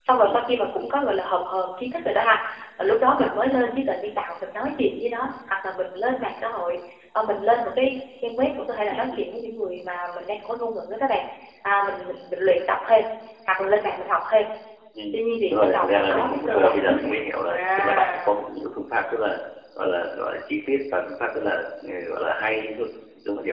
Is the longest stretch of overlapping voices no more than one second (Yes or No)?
No